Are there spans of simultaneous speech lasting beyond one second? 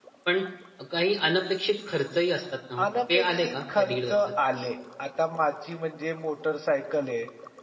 Yes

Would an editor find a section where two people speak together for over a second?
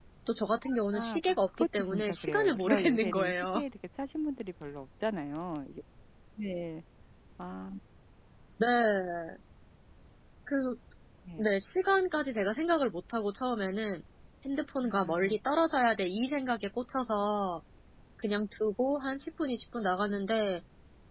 Yes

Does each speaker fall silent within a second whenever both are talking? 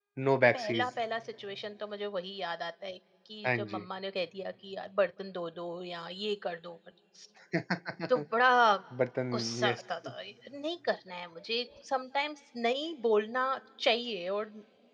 Yes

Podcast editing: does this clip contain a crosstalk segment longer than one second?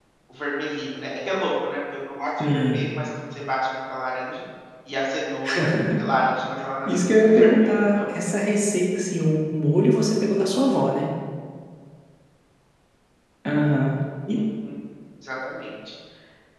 Yes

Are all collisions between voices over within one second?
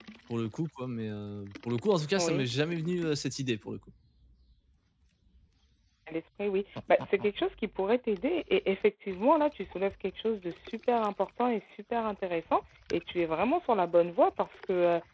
Yes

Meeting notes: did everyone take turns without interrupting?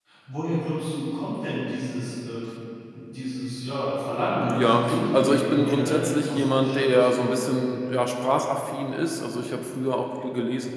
No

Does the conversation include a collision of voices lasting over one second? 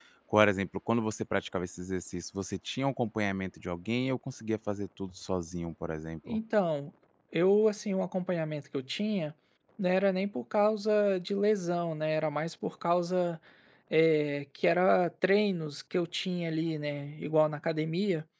No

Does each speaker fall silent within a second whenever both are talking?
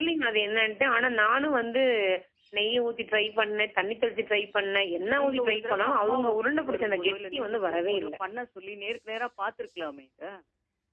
No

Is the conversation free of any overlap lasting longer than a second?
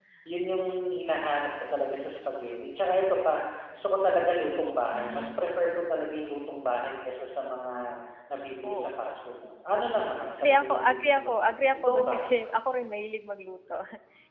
No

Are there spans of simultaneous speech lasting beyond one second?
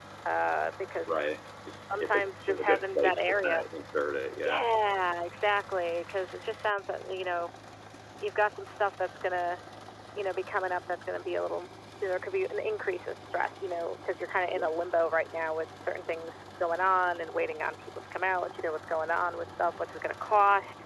Yes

